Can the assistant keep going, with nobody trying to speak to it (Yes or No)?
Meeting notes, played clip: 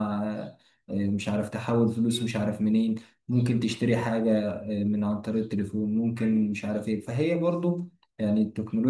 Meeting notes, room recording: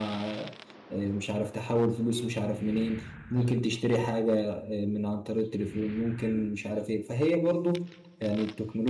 Yes